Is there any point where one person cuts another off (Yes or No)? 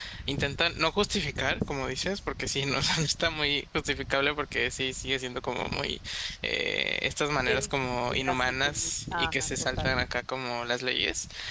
Yes